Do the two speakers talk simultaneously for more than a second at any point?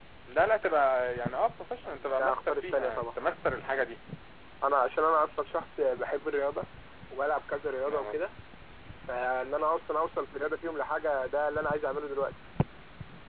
Yes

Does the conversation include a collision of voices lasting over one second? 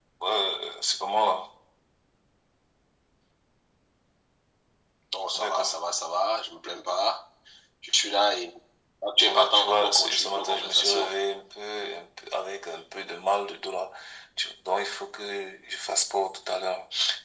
Yes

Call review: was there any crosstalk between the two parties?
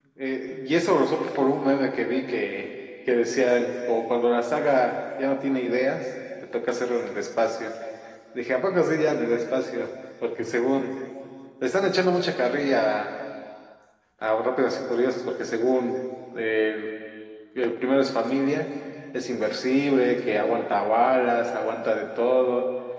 No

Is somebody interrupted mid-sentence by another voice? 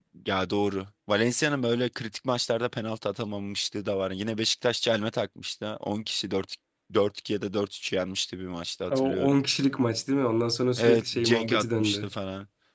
Yes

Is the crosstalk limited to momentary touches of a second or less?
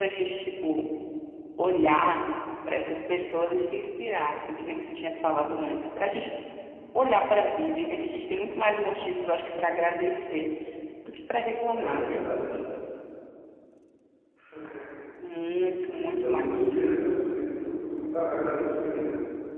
No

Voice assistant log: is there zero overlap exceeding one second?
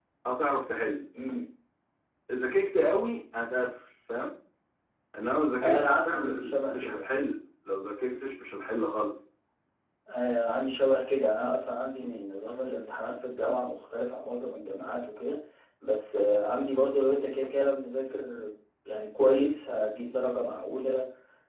No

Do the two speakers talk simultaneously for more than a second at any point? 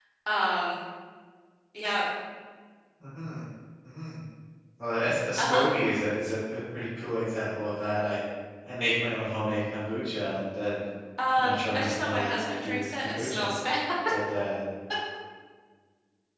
Yes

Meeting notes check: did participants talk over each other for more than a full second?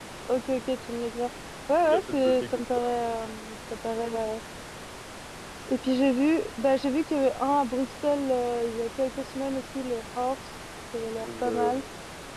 Yes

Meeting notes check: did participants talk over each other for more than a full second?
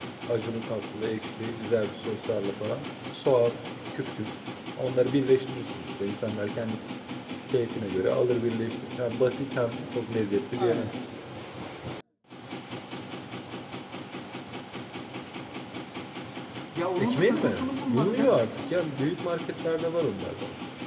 Yes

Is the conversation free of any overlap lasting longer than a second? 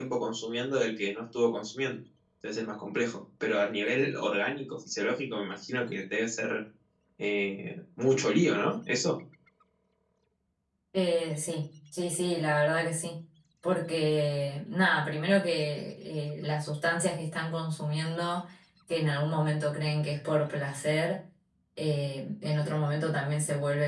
Yes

